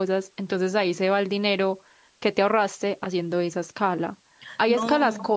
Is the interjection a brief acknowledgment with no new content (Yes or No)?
Yes